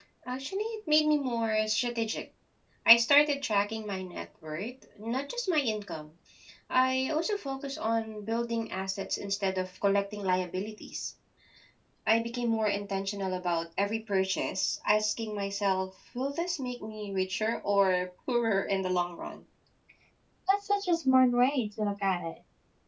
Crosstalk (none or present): none